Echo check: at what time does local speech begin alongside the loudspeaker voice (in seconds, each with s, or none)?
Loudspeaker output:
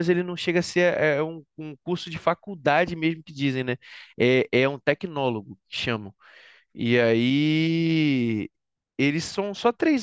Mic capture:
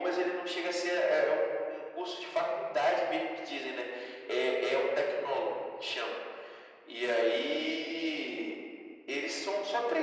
none